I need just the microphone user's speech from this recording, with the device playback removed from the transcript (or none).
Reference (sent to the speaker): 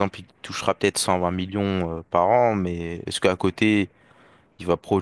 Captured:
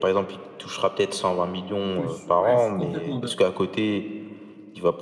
Mais je suis, ouais, je suis complètement d'accord.